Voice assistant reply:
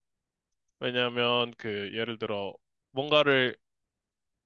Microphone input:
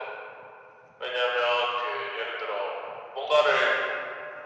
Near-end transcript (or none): none